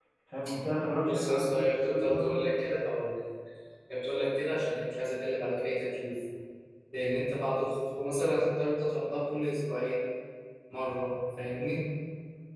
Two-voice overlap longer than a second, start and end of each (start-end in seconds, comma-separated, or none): 1.1-2.4